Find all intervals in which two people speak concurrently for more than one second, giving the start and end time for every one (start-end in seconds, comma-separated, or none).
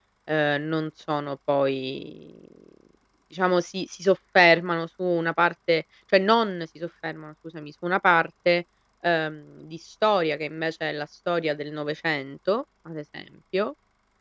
none